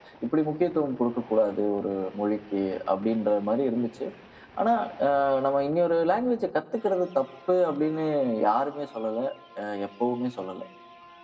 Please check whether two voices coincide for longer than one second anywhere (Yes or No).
No